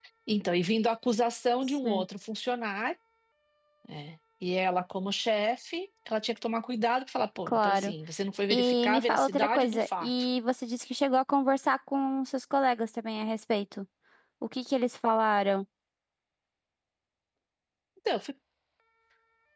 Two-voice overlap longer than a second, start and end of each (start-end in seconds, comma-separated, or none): 8.5-10.1